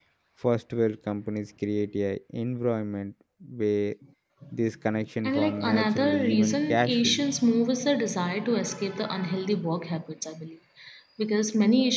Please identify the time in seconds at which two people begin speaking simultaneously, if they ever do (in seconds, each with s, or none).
5.2 s